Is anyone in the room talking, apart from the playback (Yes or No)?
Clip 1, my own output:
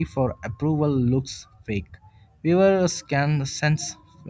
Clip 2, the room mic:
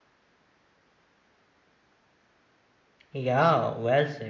Yes